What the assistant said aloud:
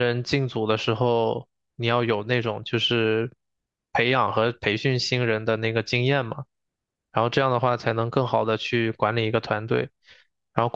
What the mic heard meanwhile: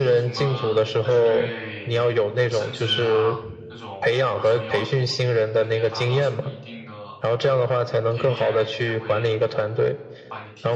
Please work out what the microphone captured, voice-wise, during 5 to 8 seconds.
both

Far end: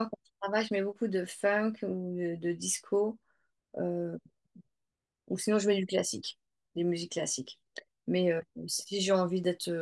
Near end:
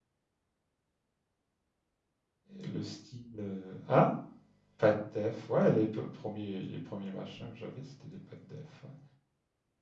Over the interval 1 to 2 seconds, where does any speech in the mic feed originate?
neither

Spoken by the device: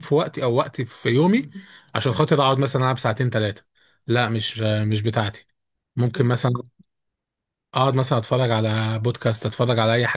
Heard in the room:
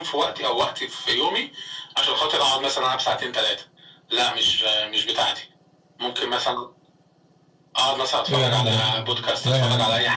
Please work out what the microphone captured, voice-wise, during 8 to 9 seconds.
both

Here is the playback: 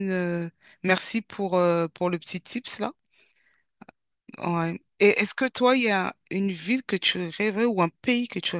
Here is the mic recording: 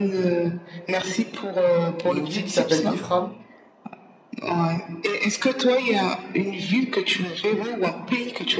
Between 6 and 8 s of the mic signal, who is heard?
echo only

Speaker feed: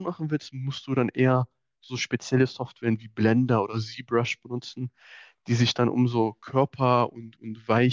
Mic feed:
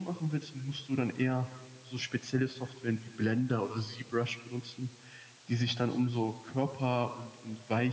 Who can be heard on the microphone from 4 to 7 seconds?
echo only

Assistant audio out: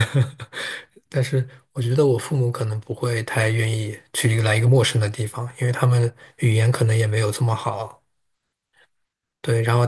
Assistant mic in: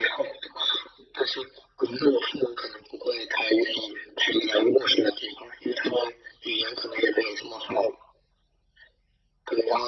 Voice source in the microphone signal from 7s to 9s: echo only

